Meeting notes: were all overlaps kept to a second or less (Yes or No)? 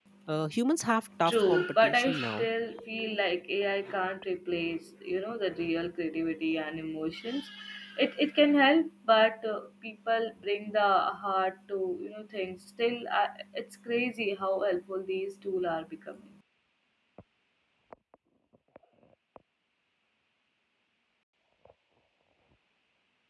No